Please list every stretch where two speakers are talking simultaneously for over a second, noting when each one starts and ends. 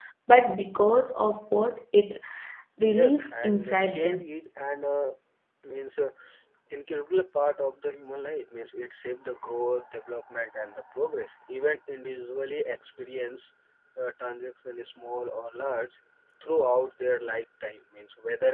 2.8-4.2

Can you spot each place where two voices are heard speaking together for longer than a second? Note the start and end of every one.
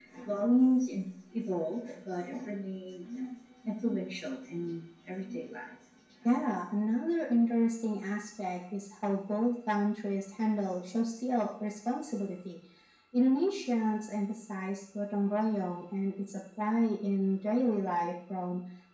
none

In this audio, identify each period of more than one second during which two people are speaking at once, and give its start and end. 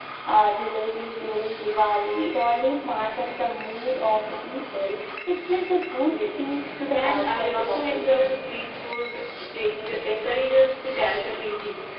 6.9-8.1

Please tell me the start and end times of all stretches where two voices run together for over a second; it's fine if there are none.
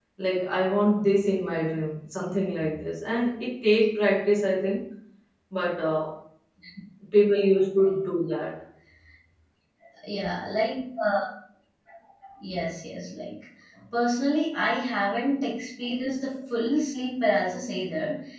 none

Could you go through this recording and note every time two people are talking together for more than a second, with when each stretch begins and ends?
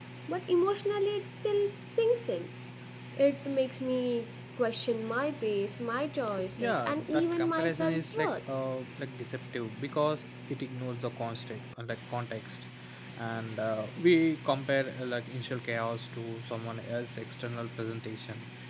6.6-8.4

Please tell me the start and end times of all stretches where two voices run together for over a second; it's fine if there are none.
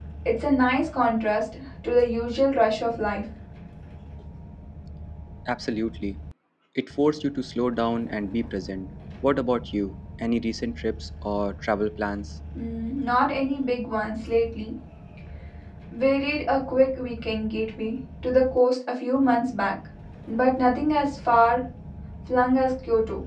none

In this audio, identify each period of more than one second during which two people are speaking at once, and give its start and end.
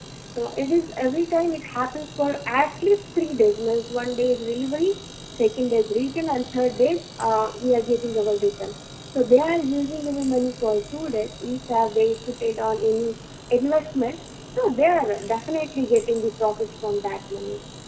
none

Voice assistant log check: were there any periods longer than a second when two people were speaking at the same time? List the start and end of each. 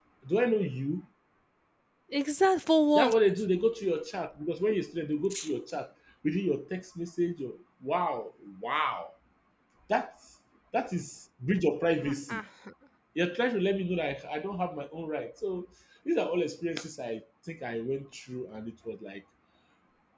none

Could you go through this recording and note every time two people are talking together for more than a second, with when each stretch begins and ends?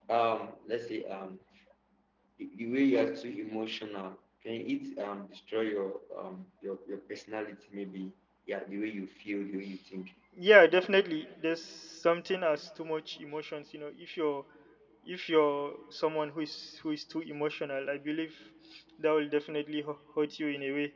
none

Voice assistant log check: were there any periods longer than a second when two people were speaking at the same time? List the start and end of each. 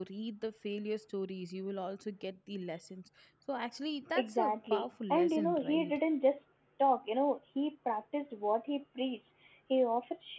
4.2-5.9

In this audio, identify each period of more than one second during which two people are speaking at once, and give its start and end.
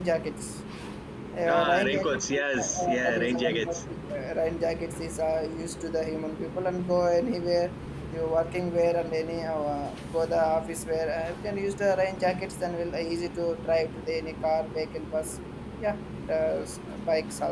1.5-3.8

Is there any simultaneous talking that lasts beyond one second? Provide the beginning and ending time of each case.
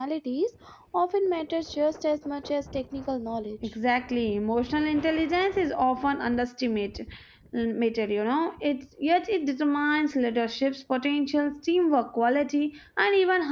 none

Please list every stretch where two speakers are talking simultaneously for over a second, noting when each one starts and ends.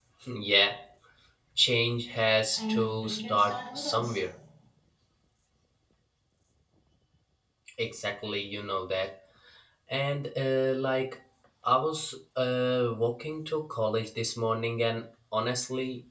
2.6-4.2

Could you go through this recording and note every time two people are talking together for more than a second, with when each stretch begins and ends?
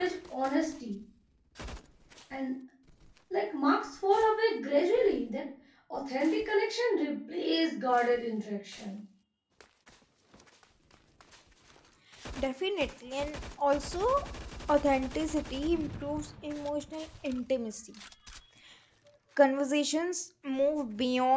none

